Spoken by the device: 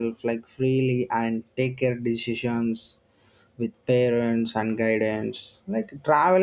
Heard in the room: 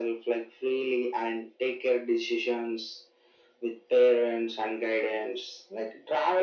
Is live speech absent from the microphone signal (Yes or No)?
Yes